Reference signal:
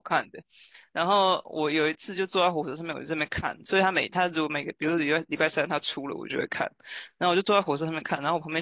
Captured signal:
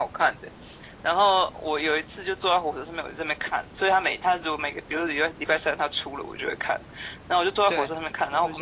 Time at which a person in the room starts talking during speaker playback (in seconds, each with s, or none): 7.6 s